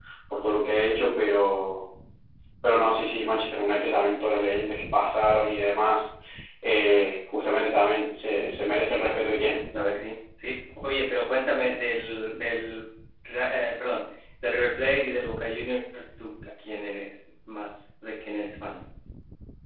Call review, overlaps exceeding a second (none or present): none